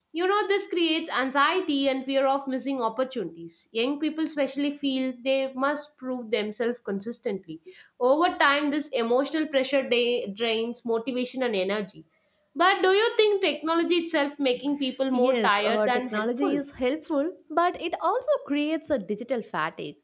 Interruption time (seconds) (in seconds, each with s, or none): 15.1 s